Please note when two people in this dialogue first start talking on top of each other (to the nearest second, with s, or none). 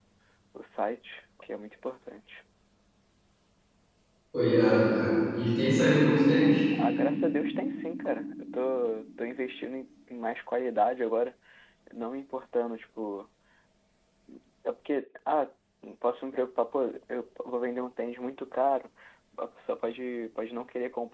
none